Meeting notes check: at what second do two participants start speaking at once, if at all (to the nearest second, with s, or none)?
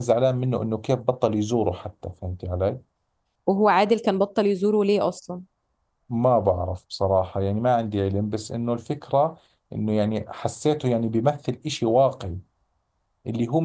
none